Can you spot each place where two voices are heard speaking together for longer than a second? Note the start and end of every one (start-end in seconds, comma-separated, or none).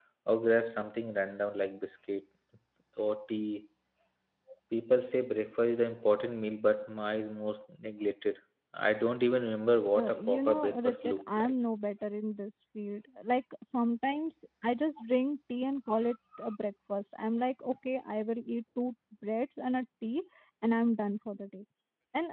9.9-11.5